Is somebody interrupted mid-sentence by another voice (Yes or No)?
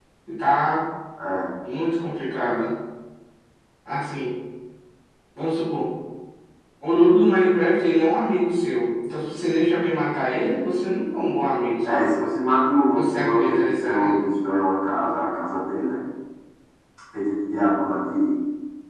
Yes